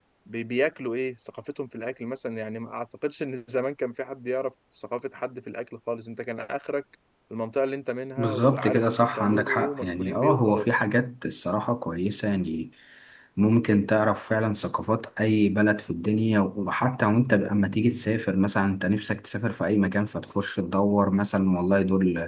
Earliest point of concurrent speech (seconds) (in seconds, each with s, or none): 8.2 s